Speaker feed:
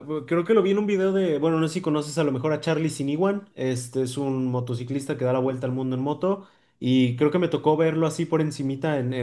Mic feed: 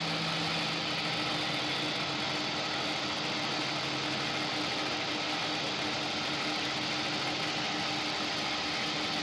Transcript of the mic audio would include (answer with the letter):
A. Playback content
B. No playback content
B